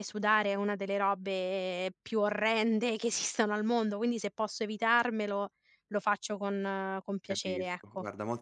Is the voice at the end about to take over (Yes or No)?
Yes